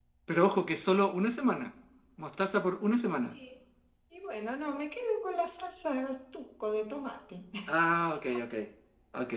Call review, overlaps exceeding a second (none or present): none